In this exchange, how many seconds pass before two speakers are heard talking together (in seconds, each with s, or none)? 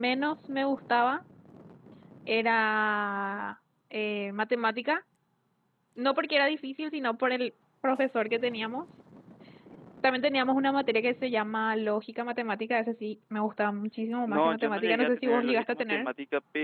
14.3 s